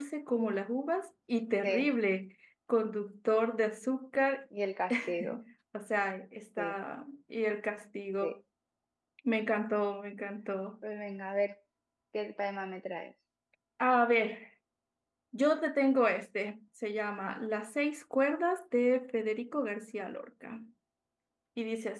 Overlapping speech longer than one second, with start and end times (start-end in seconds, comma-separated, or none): none